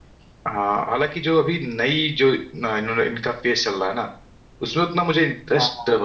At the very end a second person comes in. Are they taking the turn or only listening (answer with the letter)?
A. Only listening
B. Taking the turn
A